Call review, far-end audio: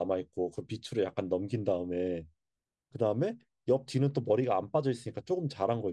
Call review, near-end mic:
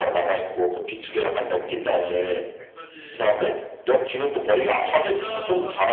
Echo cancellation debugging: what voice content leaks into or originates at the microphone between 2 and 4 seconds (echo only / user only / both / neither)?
both